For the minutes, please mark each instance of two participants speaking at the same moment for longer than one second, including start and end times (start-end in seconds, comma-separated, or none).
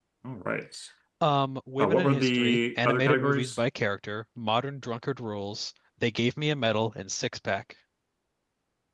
1.8-3.6